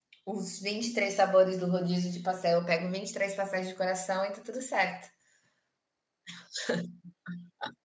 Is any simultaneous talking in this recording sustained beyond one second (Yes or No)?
No